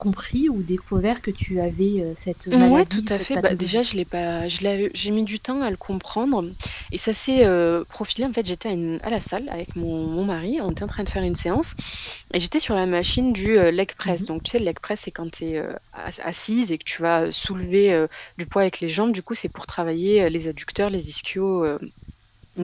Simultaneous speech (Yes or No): Yes